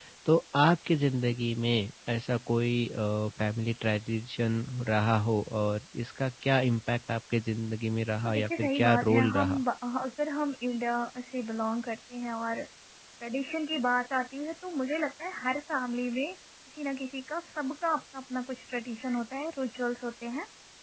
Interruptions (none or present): present